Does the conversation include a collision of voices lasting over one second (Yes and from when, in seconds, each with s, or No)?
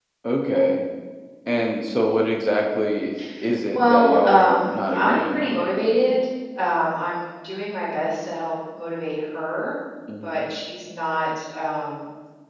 Yes, from 3.8 s